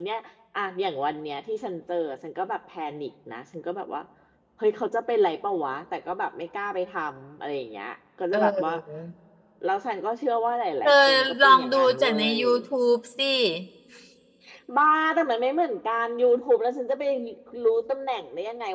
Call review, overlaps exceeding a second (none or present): present